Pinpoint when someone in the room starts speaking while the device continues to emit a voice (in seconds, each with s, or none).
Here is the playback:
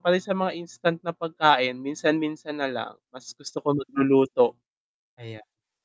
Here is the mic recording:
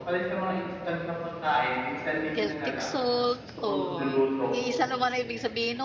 2.4 s